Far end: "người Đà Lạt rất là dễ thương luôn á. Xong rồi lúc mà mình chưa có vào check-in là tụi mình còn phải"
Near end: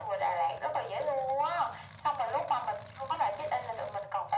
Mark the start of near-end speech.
none

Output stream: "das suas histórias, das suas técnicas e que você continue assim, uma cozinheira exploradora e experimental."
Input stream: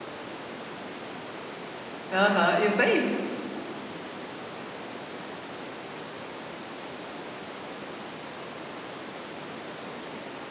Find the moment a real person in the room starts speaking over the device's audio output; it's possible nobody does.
2.1 s

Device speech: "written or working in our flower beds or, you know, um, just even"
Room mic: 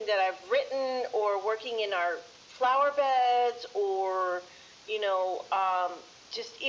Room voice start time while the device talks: none

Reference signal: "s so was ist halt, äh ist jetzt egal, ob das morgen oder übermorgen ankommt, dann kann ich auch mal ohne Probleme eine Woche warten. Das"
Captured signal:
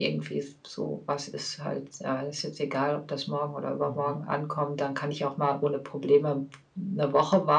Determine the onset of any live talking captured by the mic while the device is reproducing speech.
3.8 s

